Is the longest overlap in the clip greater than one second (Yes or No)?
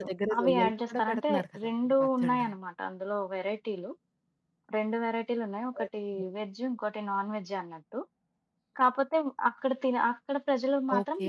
Yes